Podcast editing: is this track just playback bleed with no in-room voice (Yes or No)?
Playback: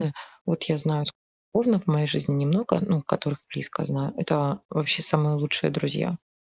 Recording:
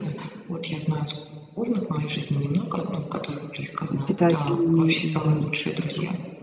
No